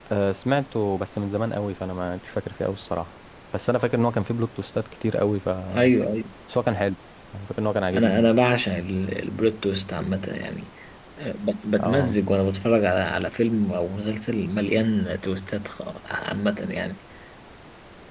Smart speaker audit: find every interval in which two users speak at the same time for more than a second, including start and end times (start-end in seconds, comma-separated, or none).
none